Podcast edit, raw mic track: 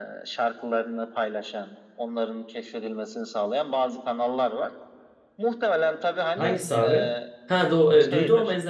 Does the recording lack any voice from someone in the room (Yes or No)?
No